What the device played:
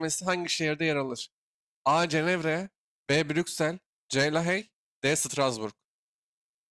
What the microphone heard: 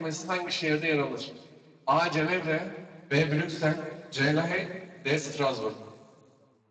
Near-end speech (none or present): none